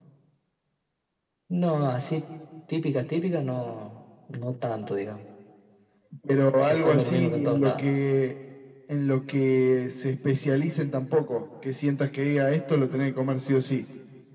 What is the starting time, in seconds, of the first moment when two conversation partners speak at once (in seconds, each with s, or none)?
6.6 s